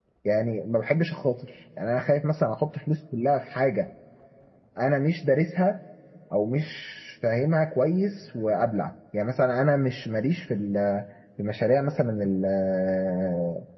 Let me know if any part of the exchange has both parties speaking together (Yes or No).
No